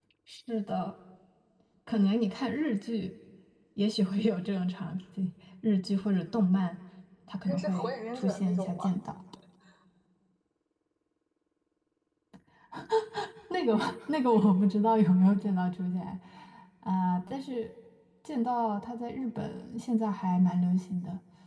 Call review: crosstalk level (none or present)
present